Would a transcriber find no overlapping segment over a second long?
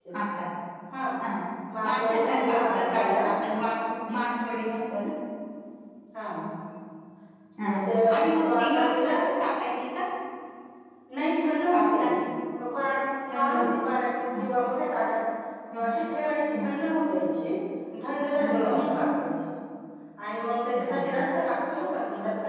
No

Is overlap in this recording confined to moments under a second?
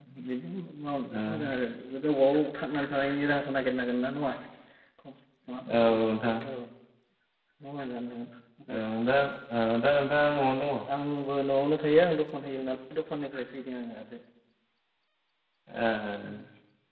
Yes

